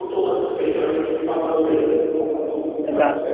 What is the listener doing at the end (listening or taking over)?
taking over